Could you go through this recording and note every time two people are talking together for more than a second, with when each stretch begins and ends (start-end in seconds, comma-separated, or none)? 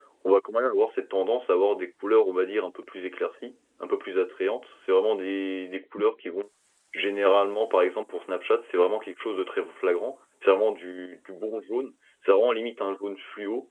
none